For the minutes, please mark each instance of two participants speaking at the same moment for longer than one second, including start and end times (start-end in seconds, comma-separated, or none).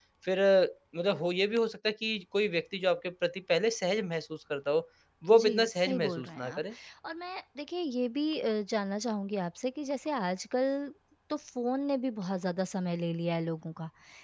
5.3-6.6